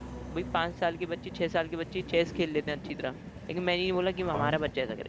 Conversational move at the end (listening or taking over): listening